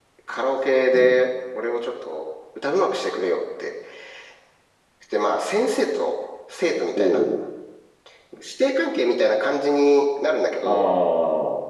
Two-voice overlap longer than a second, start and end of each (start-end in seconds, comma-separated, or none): none